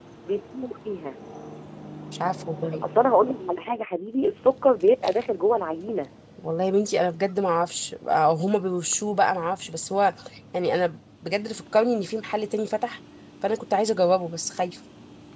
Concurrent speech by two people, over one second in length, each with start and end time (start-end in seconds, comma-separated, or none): none